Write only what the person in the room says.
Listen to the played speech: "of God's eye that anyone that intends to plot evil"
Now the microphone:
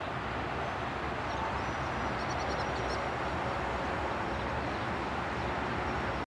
none

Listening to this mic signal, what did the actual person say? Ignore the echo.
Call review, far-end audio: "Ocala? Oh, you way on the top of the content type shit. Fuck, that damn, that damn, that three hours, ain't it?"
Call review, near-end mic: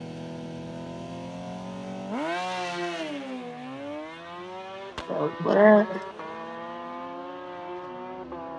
So what? up?

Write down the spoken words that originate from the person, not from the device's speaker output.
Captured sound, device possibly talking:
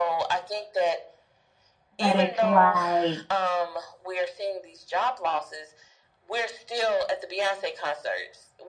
but it's like

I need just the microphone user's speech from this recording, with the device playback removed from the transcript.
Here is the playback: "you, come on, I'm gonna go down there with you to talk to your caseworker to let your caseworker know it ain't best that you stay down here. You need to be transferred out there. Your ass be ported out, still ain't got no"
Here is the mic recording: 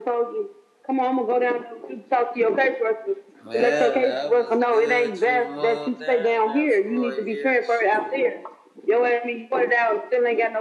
Well, that was good to move down there for a year. Shit.

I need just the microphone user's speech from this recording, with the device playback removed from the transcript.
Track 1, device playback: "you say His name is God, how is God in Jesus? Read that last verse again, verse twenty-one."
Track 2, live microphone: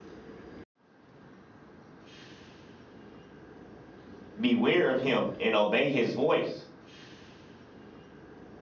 Beware of him and obey his voice.

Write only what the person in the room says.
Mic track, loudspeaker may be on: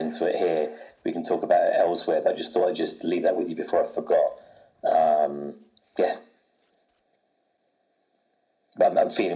none

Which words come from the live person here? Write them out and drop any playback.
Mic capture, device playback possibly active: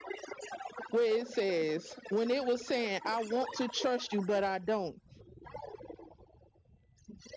where it says when it was saying i want to trust you but i don't

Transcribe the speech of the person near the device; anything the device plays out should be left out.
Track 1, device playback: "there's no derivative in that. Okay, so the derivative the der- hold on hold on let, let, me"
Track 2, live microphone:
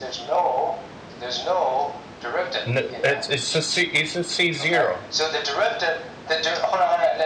No, it's it's a C it's a C zero.

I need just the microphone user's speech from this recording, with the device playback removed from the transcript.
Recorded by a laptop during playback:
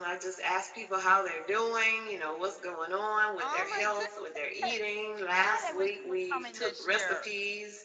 Oh my goodness. God, I wish you were coming this year.

